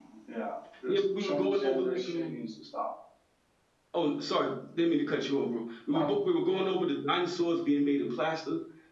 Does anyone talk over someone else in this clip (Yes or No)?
Yes